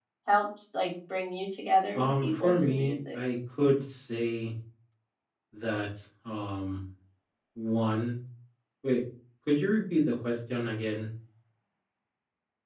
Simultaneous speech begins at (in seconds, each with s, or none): 1.9 s